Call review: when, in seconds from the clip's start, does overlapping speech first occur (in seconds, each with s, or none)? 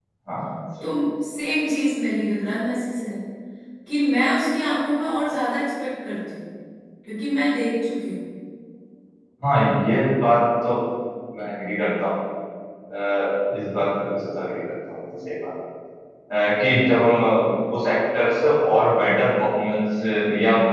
none